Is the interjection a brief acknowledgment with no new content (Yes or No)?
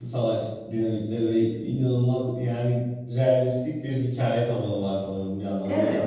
No